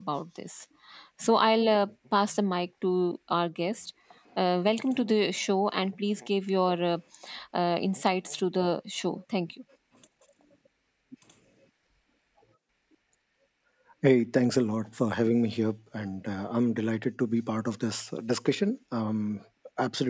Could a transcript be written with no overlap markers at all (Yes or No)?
Yes